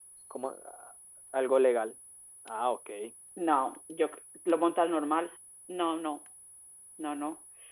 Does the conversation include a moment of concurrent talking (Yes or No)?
No